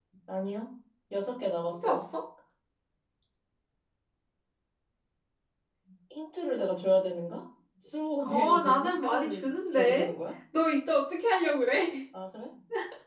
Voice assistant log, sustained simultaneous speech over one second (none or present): present